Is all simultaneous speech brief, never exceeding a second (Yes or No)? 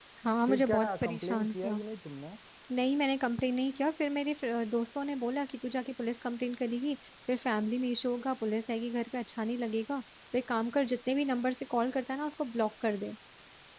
No